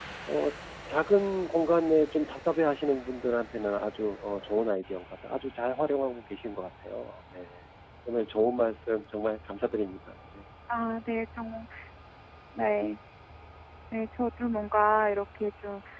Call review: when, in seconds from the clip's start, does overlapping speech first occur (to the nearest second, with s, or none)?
none